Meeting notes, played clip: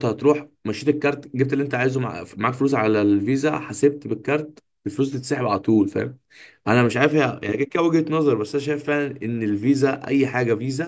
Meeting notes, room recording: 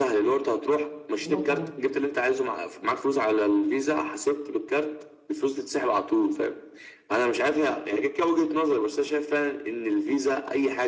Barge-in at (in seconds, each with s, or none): 1.2 s